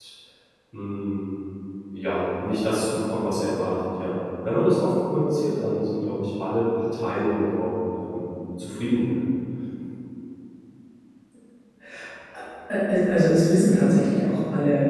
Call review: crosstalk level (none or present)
none